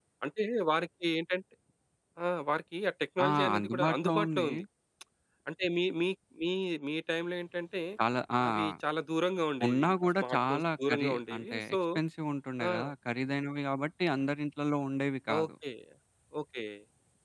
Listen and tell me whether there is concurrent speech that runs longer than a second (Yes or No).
Yes